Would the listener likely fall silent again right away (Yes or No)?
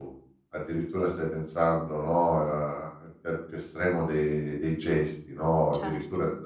Yes